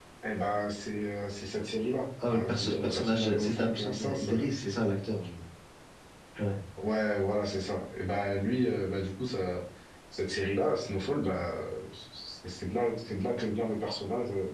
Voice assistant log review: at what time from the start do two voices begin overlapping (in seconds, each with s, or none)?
2.2 s